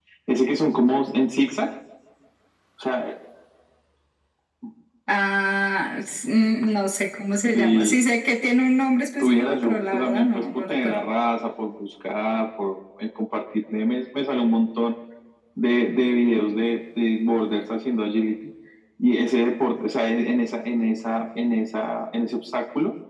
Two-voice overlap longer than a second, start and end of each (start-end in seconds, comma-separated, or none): 9.2-11.0